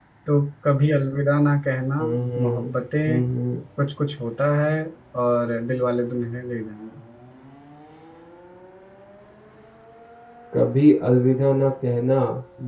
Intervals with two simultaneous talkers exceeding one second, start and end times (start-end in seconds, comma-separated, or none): none